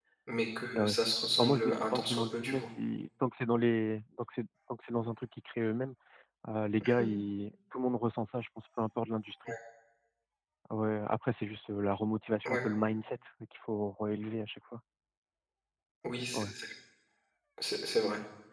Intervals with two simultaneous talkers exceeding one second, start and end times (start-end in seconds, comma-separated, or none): 1.4-2.7